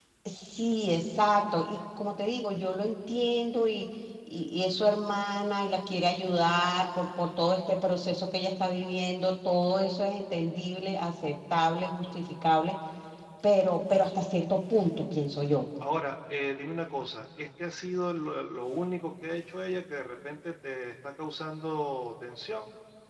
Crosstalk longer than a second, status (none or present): none